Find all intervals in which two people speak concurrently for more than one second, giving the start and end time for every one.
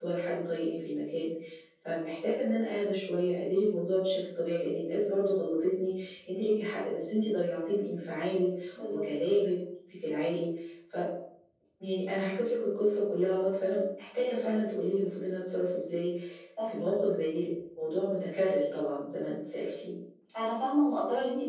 none

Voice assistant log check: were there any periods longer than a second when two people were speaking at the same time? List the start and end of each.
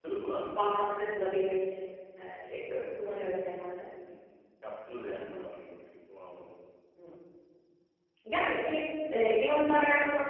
none

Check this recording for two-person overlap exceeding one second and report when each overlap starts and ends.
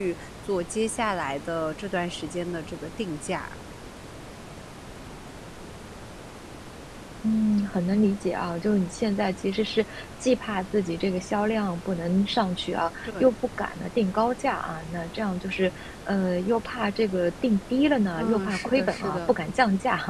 18.2-19.4

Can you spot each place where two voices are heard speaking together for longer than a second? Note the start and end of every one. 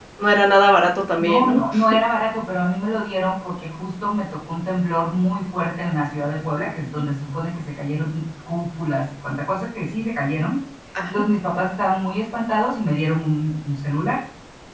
none

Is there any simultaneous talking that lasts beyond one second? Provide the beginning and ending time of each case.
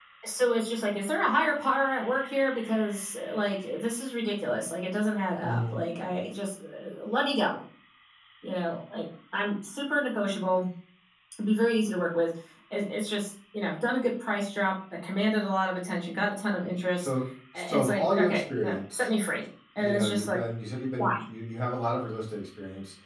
17.6-19.1

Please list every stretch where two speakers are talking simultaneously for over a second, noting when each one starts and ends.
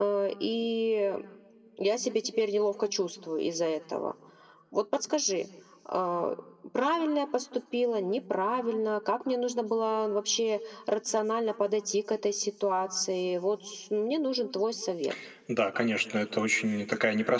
none

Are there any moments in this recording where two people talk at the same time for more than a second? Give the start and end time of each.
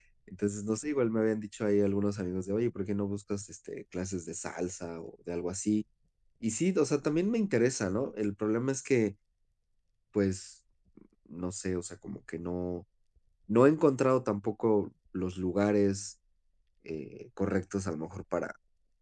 none

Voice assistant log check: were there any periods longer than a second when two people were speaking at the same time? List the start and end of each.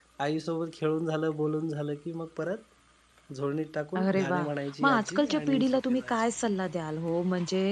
4.8-6.2

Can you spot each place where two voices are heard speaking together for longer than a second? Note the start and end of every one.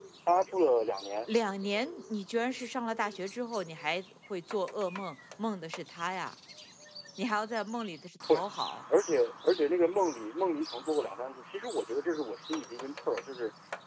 none

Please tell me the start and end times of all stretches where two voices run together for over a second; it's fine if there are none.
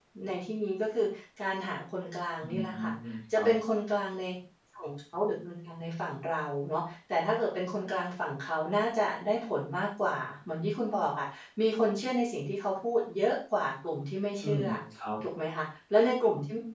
none

